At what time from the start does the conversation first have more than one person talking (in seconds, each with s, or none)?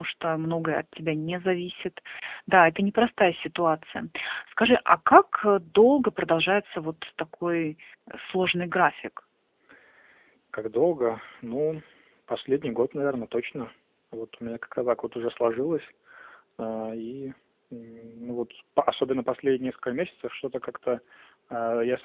none